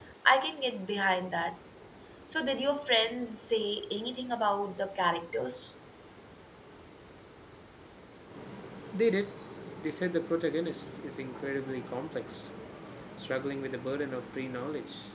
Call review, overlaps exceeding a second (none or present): none